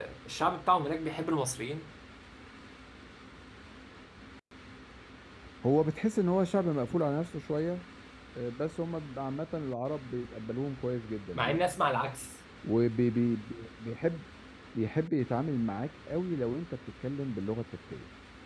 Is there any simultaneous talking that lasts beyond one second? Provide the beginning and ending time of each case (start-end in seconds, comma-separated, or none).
none